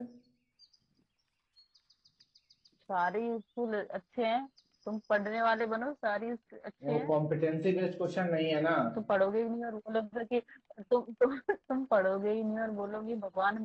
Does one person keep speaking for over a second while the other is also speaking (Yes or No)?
No